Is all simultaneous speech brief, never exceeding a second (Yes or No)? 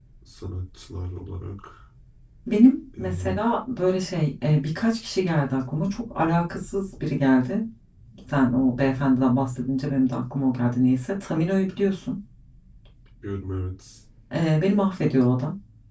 Yes